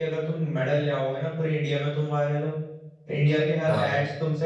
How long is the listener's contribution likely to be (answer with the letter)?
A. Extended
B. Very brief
B